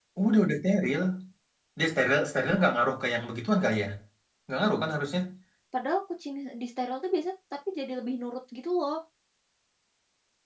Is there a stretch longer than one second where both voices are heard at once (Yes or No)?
No